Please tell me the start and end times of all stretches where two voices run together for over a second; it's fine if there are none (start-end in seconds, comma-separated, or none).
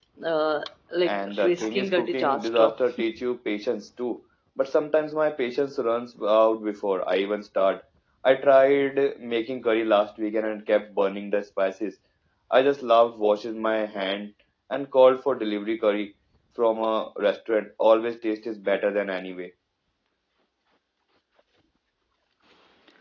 1.1-2.7